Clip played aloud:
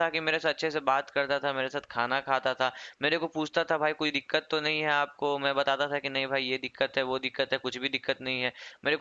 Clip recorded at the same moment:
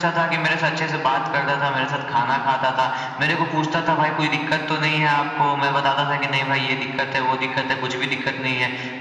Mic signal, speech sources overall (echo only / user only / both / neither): echo only